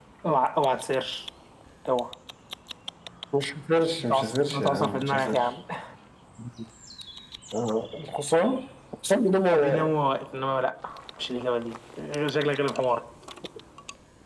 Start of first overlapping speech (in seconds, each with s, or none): 4.0 s